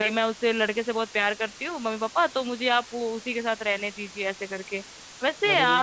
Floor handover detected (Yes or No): No